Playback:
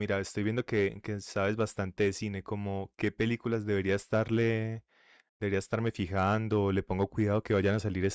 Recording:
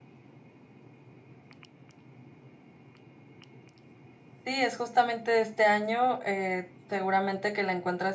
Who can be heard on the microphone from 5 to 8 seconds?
user only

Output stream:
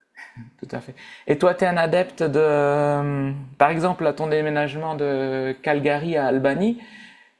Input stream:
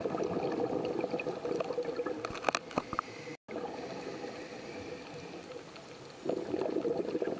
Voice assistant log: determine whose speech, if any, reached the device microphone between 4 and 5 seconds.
neither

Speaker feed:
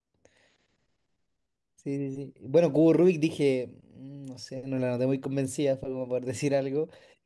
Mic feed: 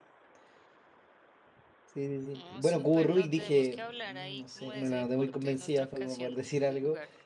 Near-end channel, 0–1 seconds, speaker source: neither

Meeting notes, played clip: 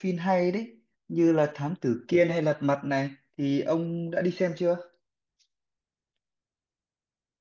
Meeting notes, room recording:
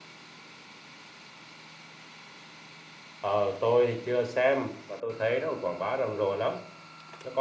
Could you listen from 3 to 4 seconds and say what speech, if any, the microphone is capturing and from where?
user only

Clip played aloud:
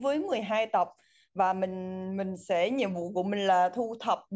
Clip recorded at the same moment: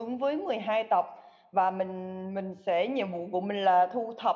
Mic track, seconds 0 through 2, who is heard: echo only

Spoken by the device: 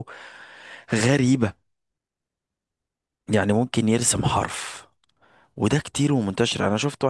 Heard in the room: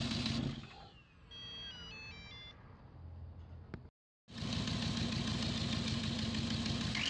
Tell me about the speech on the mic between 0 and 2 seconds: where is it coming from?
neither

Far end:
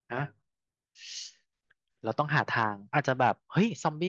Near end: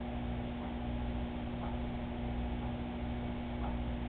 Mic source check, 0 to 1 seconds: neither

